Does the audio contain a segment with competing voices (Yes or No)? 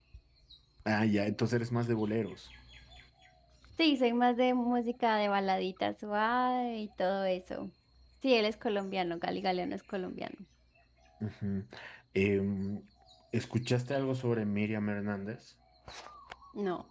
No